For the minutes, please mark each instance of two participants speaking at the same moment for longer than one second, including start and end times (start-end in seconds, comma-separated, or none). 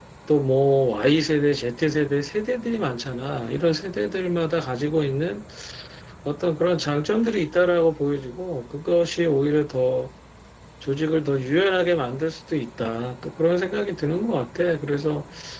none